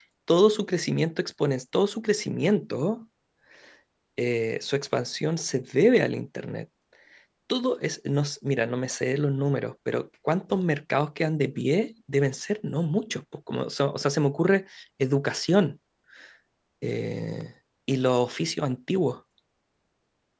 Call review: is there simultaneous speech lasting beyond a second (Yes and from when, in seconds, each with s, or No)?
No